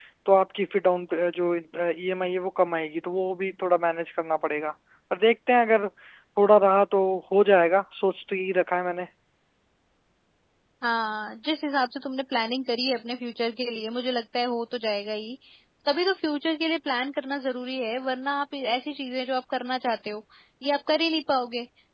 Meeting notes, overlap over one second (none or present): none